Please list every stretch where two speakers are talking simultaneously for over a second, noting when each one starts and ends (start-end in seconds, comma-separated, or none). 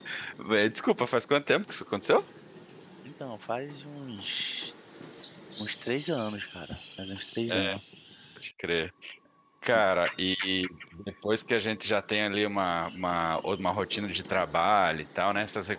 none